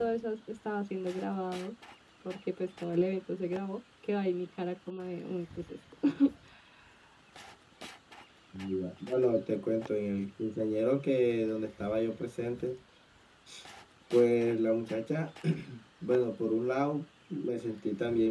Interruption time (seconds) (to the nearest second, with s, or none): none